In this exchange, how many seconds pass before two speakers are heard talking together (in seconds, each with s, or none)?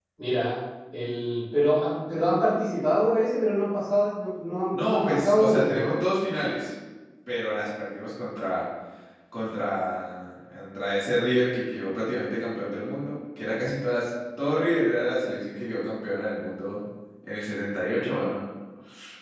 4.7 s